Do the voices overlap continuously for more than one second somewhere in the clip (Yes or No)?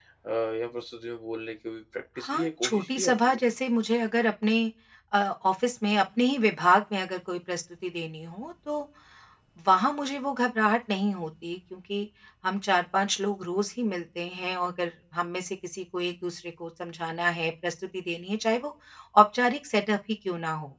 Yes